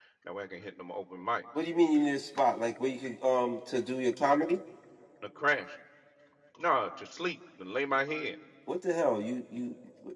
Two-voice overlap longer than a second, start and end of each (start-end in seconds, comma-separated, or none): none